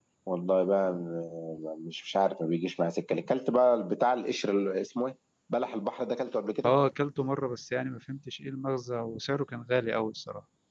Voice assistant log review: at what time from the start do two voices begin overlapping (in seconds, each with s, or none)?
none